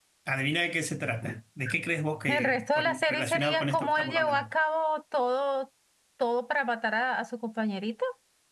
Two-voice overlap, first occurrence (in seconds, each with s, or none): 2.3 s